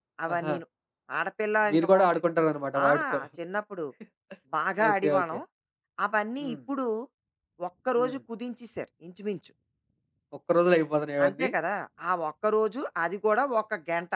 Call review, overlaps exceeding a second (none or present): none